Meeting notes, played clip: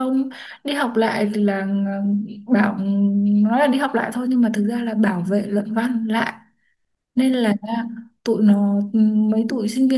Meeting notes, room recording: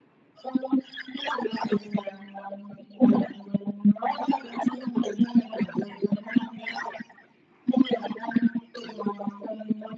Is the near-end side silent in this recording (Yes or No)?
Yes